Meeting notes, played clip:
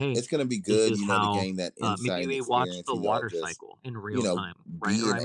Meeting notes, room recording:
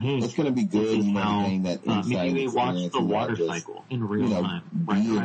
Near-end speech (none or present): none